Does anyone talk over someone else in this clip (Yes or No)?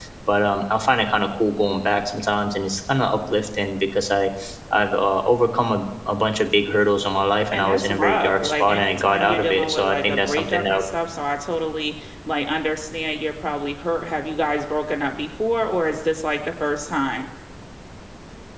Yes